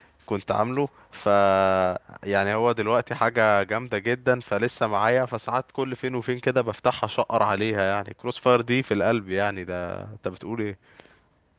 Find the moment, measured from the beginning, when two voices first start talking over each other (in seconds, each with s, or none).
none